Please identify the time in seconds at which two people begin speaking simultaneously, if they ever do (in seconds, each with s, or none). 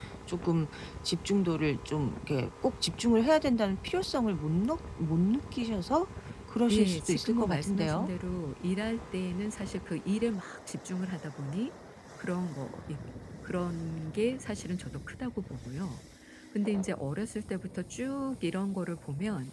6.7 s